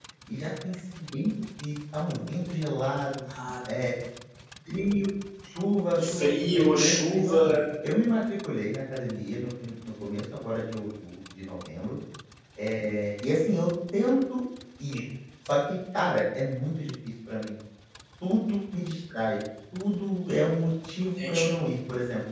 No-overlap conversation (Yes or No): No